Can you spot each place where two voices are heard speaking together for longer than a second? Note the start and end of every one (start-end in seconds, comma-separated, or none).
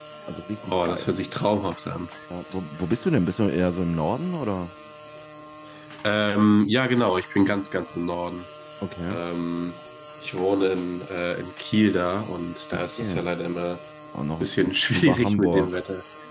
14.4-15.8